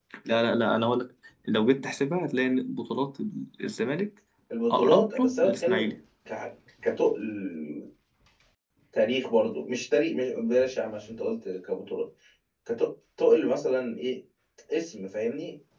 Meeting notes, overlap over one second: present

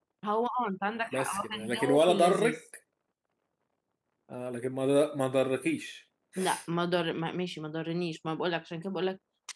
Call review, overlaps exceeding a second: present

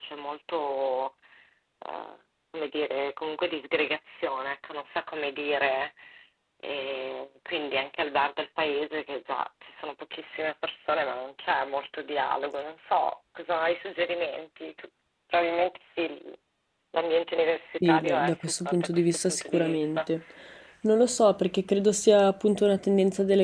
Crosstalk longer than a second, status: present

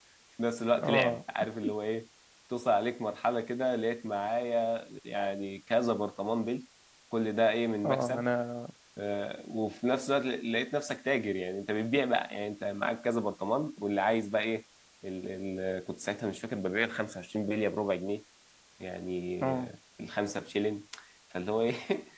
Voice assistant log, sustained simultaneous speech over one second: none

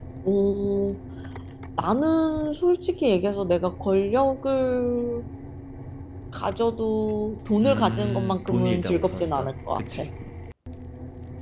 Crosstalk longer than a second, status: present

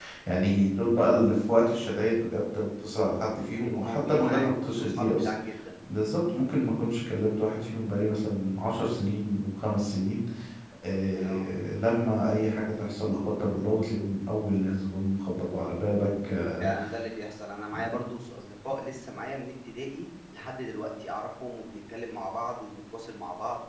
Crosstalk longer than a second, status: present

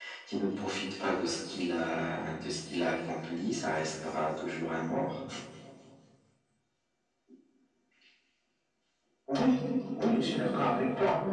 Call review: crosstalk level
none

